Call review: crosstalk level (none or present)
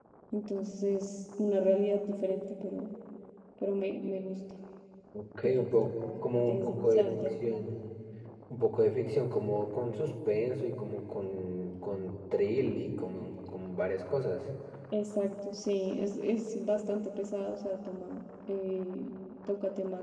present